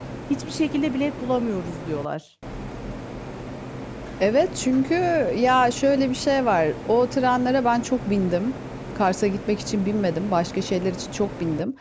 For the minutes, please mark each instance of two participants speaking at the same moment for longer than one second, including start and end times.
none

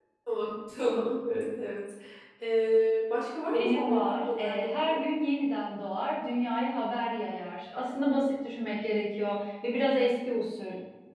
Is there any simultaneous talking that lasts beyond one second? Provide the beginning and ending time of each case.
3.5-5.1

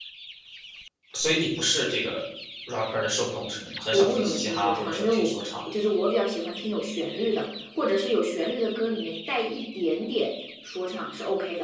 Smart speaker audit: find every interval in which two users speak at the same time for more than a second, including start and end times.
3.9-5.4

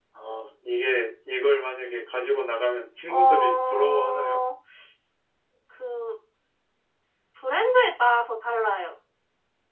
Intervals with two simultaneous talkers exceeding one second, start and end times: 3.1-4.4

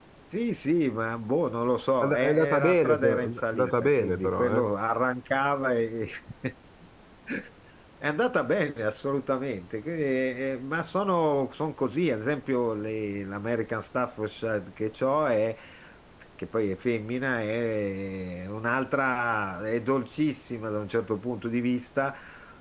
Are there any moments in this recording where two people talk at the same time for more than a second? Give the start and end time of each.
2.0-4.7

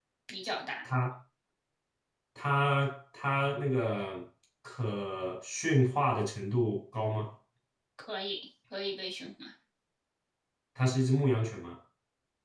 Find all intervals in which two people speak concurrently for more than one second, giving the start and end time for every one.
none

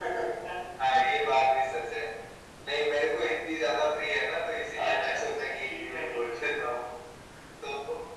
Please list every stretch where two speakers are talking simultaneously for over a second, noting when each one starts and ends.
4.8-6.3

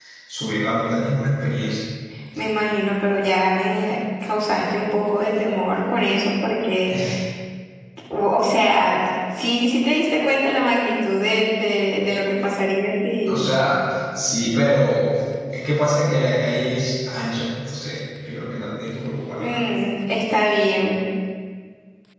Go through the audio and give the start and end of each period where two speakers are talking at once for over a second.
none

